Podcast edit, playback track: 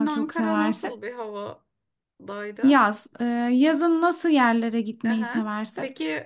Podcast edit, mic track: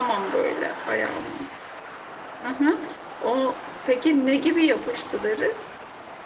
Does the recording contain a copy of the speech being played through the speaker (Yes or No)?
No